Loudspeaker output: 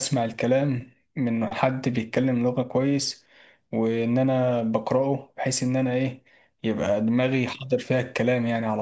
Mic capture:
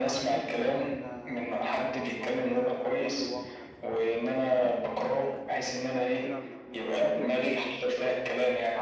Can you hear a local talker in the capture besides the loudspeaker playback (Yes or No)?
Yes